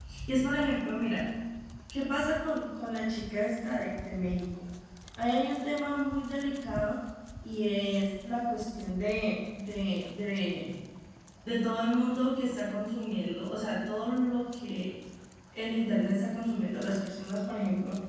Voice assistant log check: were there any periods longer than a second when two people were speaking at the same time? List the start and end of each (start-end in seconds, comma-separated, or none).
none